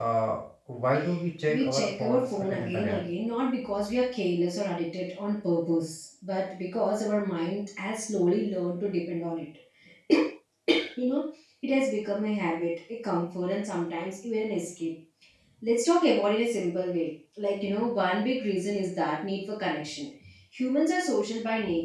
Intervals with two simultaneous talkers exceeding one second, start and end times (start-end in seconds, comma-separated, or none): 1.5-3.0